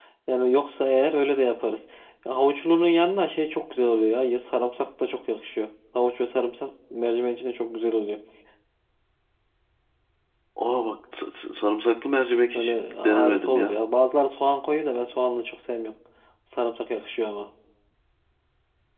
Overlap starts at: 13 s

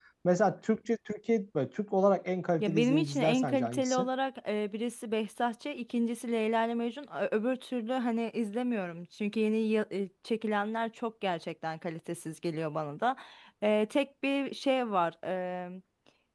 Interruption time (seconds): 3 s

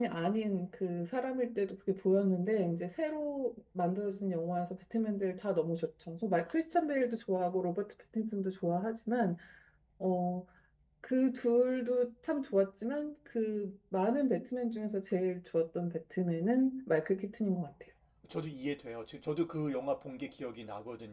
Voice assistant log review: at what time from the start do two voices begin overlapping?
none

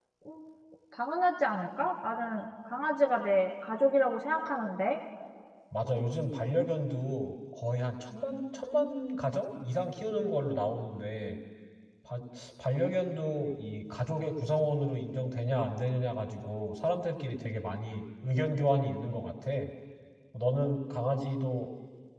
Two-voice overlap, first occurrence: none

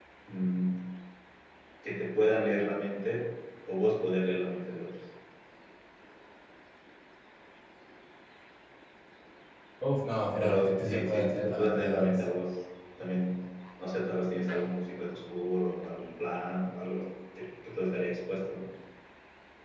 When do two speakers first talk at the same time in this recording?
10 s

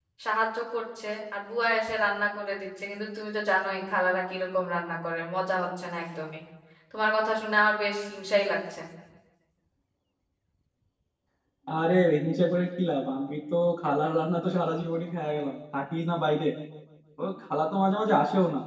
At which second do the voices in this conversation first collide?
none

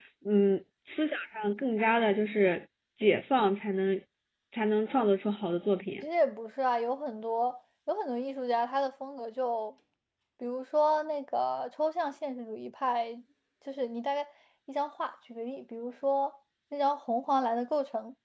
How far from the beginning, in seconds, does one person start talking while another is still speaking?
none

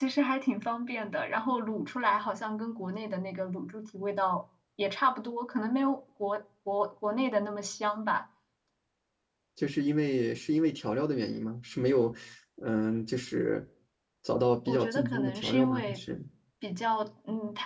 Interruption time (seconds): 15 s

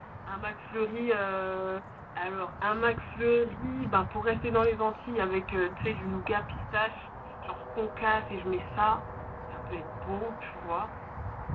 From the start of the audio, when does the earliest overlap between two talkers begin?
none

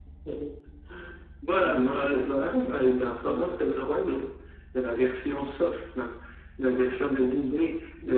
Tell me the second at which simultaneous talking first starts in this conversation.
2 s

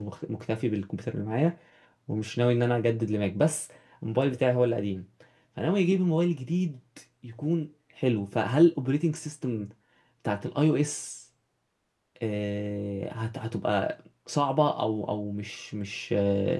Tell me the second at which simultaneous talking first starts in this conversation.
none

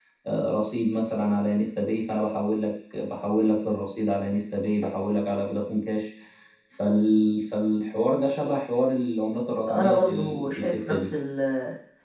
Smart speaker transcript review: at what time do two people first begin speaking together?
10 s

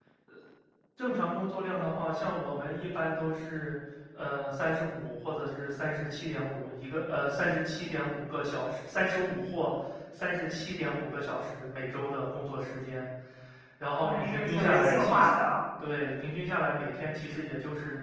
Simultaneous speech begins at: 14 s

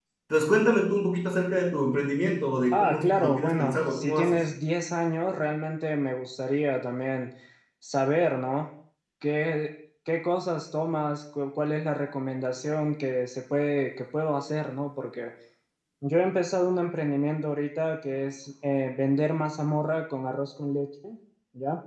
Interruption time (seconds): 3 s

